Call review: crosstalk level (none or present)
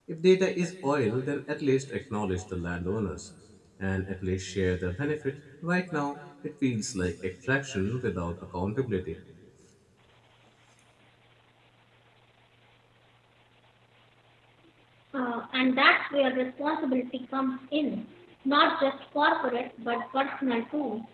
none